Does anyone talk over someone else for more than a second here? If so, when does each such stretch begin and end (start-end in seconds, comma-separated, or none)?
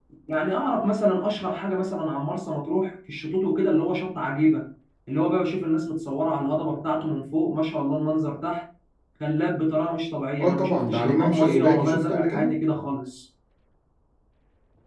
10.4-12.5